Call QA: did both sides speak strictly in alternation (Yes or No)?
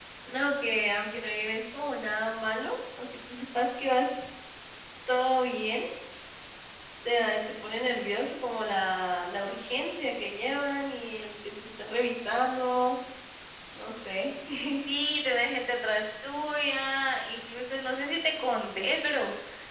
Yes